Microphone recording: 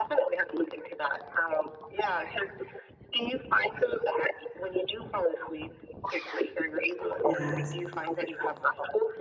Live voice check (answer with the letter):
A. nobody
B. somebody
B